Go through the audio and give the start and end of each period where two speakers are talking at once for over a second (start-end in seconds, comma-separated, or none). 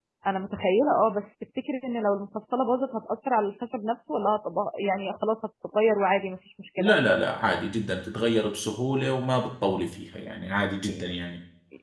none